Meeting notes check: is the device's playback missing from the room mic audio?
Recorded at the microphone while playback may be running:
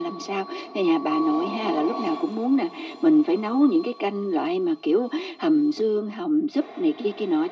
No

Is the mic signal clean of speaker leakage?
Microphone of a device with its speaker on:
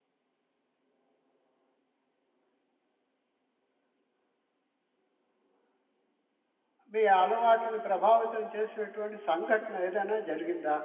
Yes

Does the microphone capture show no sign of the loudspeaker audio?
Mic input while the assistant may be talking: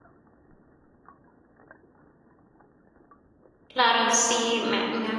Yes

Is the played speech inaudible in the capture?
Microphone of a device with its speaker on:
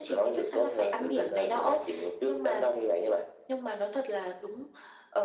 No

